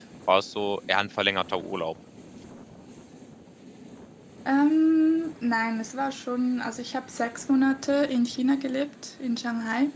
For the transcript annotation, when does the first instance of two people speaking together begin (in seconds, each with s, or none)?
none